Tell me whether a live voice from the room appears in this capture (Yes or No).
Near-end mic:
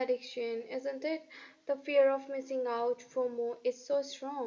No